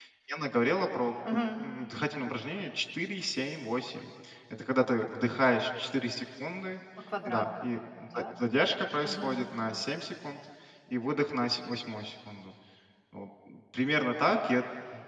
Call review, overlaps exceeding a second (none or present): none